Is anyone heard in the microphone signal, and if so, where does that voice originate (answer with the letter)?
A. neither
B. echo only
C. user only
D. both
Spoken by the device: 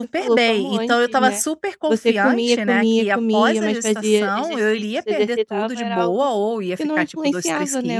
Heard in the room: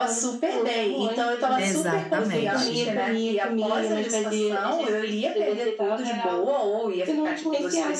D